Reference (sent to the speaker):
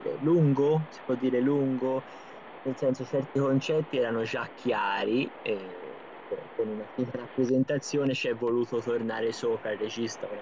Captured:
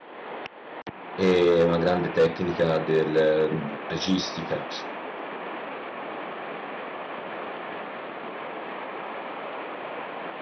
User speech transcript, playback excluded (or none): e una grande tecnica del mm, registica.